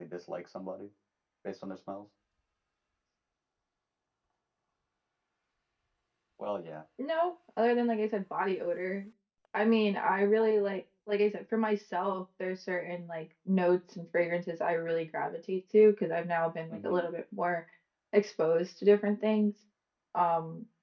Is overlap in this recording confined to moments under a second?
Yes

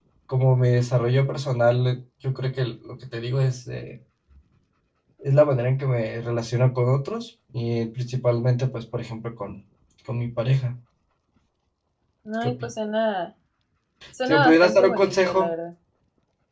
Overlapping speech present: Yes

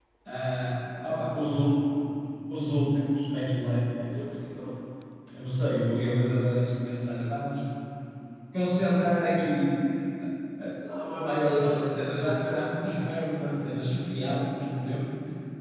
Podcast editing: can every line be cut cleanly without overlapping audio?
No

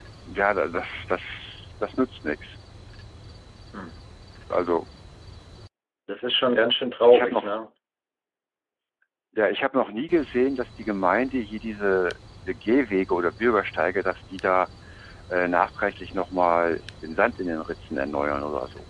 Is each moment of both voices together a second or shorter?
Yes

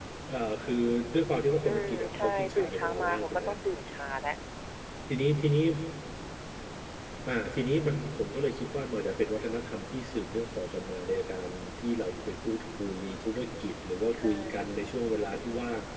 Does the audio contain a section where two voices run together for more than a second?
Yes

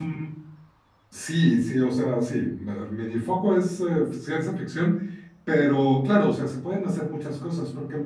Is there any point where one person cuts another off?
No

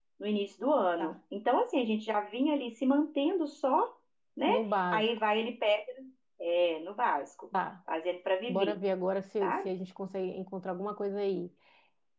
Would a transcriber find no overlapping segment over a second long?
Yes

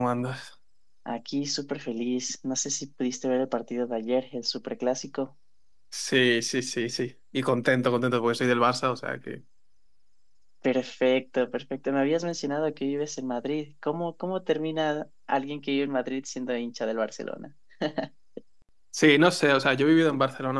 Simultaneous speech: No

